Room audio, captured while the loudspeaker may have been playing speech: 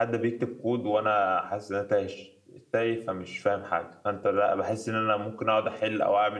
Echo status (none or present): none